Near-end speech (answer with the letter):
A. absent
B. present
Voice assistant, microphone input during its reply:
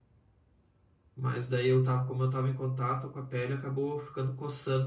B